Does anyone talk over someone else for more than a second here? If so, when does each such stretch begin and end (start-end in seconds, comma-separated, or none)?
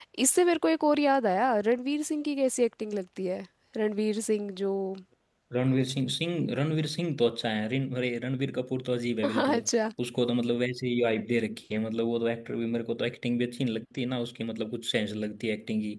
none